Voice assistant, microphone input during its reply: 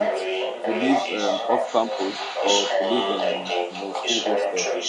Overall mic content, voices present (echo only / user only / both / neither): both